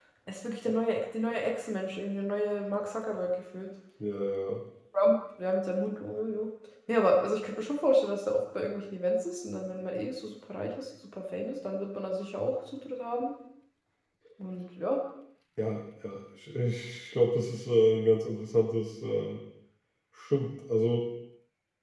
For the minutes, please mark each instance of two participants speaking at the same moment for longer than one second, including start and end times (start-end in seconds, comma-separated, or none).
none